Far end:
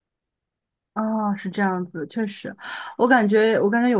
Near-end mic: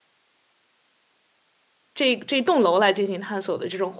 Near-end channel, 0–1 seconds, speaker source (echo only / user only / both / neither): neither